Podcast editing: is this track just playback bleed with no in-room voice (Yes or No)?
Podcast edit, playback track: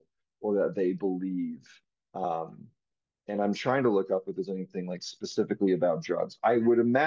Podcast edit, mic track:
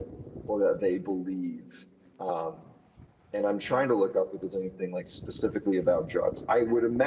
Yes